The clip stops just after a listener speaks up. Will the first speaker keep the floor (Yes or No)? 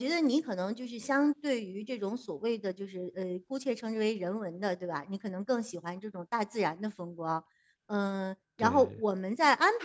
Yes